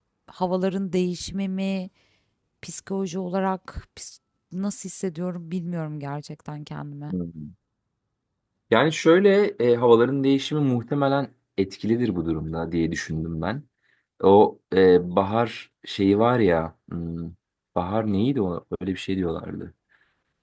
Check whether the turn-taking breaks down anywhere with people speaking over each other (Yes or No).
No